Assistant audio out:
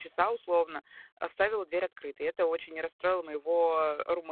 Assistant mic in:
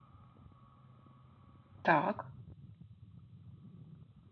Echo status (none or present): none